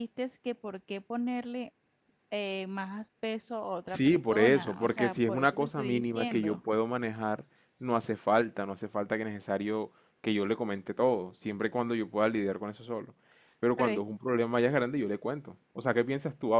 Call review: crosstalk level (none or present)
present